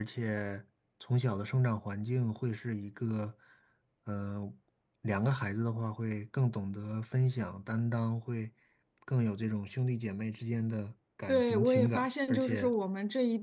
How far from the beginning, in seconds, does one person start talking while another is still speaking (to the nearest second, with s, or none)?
11 s